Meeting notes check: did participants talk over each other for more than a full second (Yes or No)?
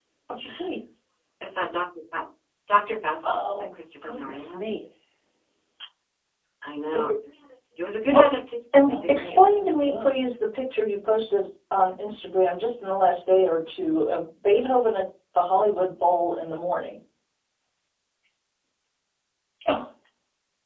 Yes